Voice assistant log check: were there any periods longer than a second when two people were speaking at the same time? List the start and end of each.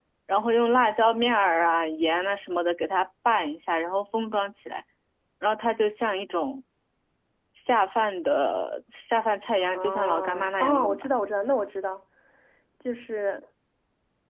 9.6-11.1

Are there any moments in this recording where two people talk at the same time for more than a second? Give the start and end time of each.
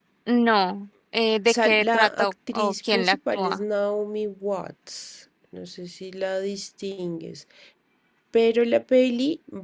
1.5-3.6

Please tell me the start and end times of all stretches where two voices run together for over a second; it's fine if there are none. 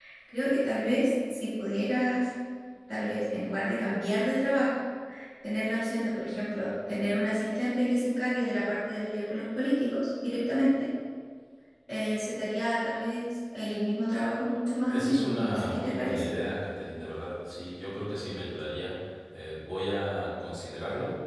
14.9-16.2

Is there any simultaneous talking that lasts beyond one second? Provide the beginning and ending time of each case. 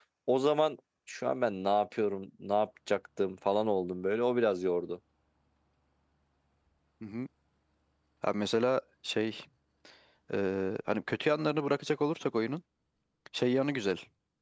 none

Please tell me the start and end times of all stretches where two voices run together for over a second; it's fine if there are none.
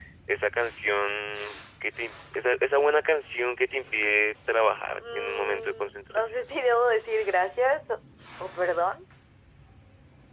5.1-6.3

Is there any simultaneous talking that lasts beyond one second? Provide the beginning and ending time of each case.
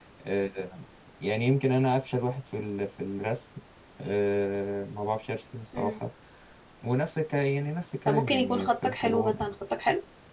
8.1-9.4

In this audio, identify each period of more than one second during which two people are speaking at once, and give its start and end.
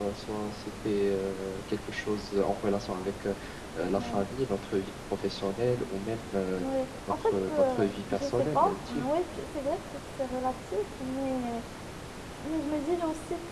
7.2-9.0

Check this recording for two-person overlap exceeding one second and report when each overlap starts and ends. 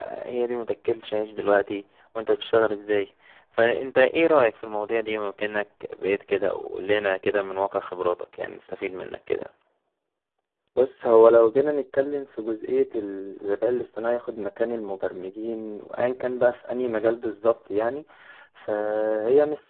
none

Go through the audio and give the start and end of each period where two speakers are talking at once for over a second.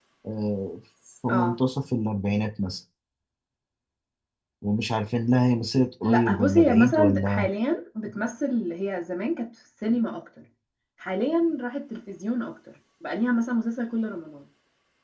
6.0-7.5

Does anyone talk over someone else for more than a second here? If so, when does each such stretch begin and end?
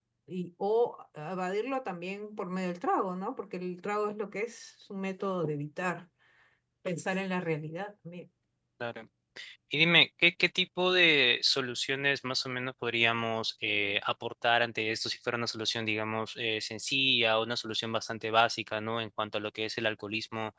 none

